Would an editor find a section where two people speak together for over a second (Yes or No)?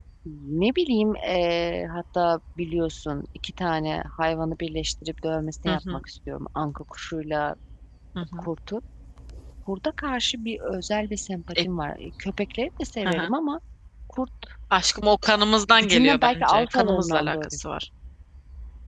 Yes